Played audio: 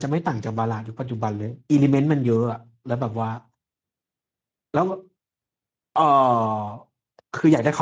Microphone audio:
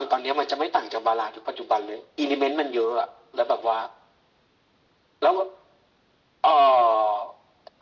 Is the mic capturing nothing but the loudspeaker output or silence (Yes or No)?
Yes